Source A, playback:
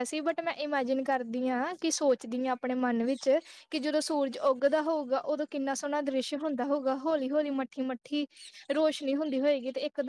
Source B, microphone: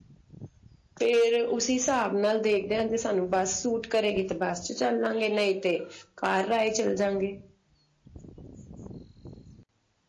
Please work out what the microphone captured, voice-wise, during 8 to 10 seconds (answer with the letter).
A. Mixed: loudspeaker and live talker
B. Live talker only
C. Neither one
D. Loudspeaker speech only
C